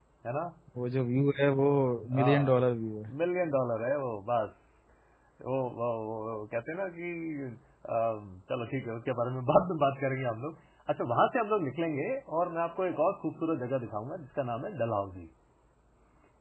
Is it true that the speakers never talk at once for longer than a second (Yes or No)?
Yes